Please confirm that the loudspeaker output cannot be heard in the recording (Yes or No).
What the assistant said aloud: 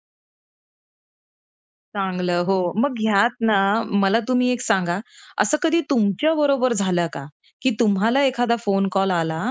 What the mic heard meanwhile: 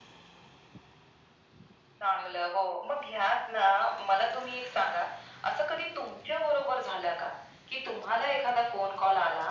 No